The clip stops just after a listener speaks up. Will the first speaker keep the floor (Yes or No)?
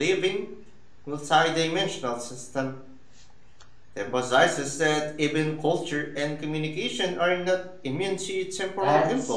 No